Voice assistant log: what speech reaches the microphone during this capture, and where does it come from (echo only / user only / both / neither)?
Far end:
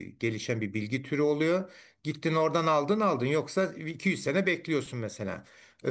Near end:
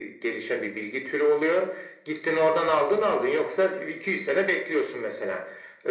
echo only